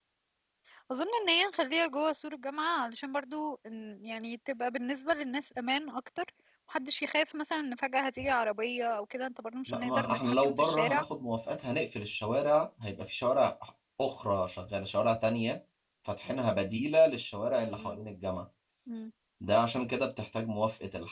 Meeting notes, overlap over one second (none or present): present